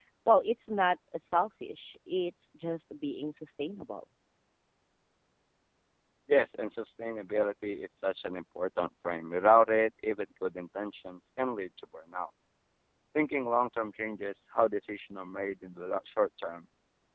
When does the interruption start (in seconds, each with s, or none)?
none